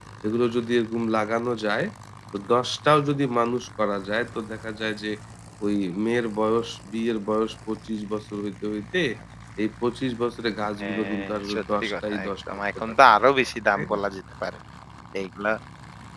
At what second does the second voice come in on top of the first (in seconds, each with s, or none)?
10.8 s